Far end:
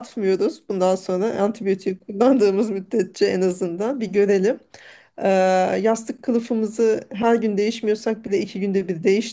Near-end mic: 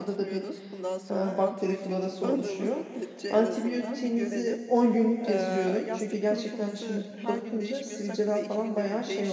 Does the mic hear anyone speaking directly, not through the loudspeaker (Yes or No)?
Yes